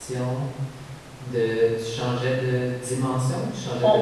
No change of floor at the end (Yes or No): No